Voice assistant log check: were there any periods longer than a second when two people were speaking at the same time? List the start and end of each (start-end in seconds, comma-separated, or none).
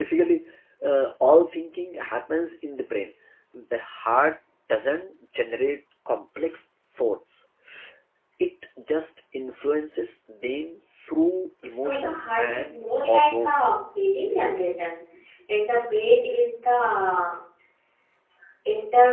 11.7-13.8